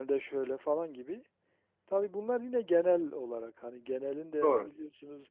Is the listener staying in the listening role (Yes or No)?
Yes